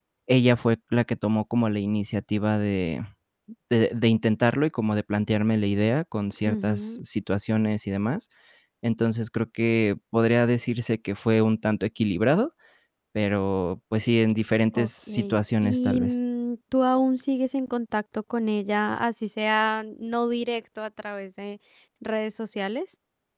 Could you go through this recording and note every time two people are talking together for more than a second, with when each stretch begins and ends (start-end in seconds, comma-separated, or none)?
14.7-16.2